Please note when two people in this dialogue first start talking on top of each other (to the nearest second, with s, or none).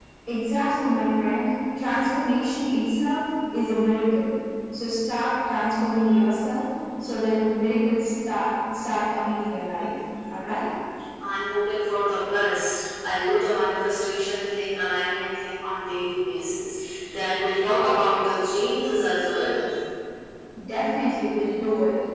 none